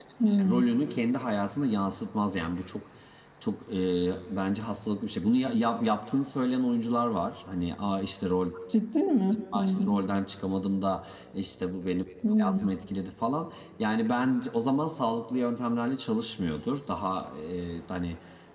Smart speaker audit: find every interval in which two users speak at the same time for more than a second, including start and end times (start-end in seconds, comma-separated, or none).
none